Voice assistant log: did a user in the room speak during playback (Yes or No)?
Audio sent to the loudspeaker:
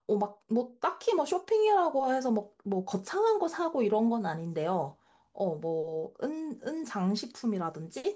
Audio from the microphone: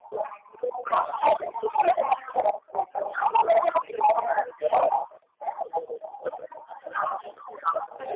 No